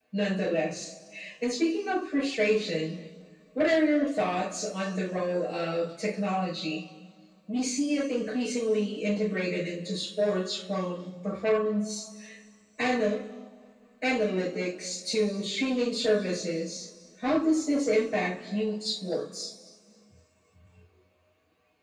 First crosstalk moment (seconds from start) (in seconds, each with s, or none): none